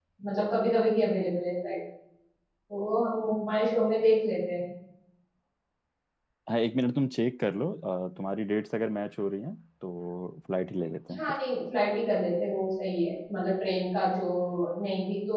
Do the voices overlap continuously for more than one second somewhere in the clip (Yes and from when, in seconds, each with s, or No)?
No